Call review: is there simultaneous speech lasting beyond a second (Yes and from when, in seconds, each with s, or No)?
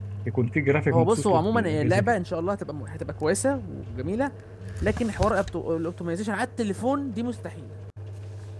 Yes, from 0.9 s